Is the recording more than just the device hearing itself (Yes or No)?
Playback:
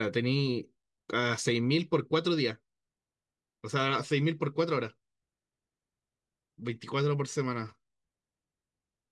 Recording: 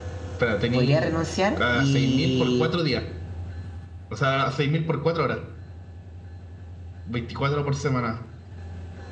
Yes